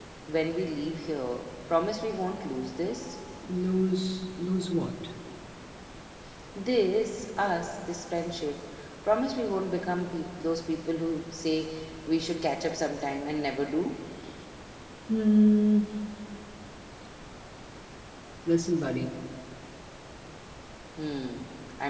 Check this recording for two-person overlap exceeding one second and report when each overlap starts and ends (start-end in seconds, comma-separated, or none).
none